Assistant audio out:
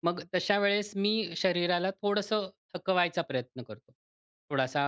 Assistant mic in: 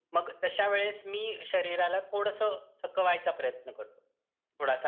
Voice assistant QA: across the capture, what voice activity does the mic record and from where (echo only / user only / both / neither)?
echo only